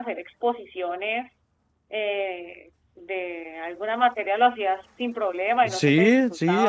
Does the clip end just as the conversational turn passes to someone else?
Yes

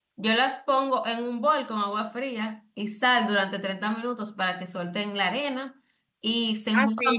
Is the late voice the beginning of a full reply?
Yes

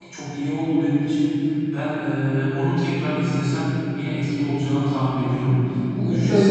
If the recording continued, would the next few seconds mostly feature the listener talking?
Yes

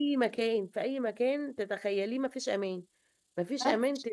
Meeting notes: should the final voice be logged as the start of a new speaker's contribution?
No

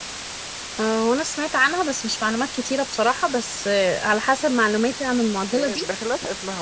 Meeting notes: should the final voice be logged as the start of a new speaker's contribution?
Yes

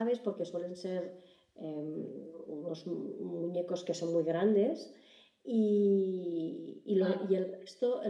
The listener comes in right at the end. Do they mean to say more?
No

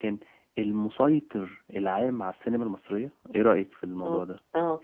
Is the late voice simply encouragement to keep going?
No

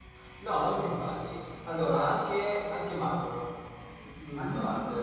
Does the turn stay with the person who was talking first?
Yes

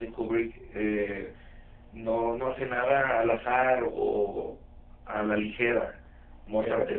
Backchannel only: Yes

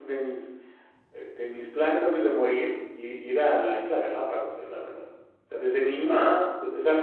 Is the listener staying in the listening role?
Yes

